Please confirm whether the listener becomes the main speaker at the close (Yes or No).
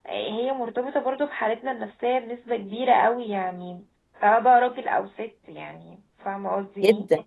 Yes